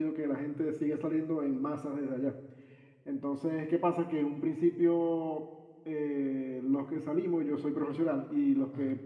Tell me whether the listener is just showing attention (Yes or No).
Yes